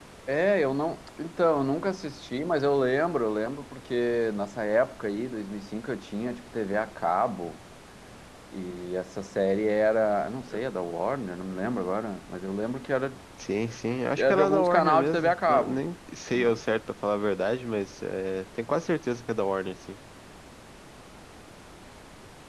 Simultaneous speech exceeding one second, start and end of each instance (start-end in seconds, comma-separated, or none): 14.2-15.8